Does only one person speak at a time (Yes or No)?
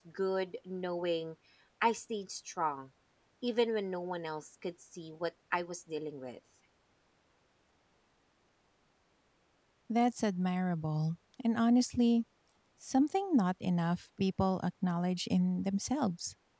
Yes